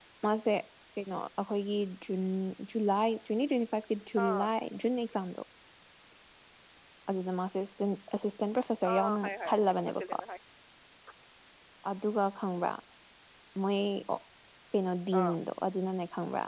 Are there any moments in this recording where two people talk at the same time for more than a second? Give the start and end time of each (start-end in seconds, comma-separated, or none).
8.9-10.2